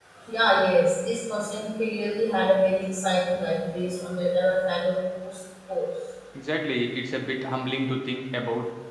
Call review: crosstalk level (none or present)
none